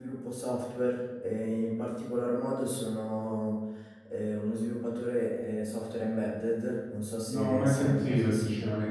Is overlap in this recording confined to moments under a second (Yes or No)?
No